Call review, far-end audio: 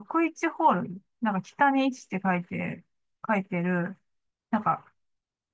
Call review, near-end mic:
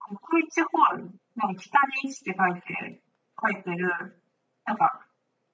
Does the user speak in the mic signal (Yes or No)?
No